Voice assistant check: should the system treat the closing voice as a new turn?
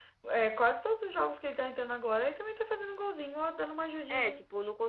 Yes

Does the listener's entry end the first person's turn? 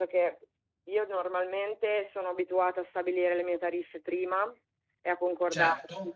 No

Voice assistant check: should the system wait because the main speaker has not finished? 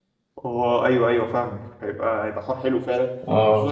Yes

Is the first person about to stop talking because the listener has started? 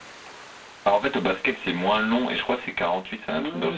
Yes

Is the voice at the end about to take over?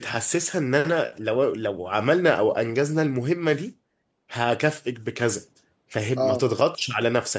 No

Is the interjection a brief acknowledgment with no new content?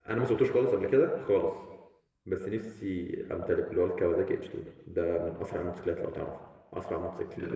Yes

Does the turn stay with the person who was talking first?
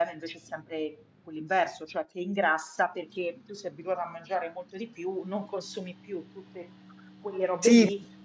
No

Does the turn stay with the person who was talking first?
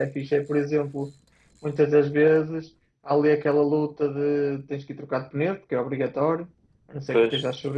Yes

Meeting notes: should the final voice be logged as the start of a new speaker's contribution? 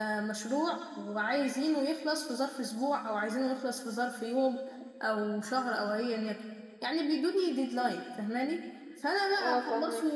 No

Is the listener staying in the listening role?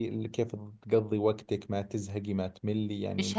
No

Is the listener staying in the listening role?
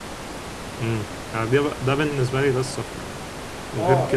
No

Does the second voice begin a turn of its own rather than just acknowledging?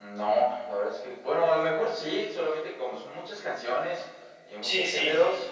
No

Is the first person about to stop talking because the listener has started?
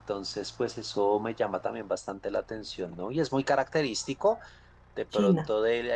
No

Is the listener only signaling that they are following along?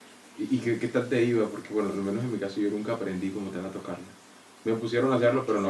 No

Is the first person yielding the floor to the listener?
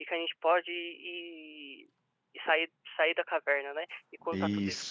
No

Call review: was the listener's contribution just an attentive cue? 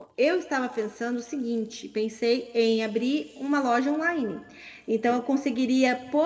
Yes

